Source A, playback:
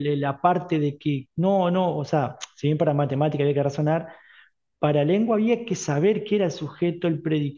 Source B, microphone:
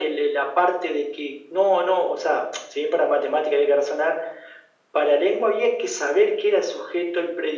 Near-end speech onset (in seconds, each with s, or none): none